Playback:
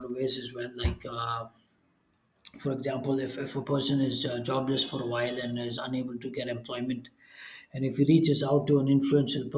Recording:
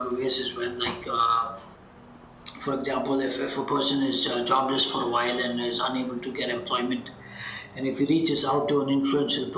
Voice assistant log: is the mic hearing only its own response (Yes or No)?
Yes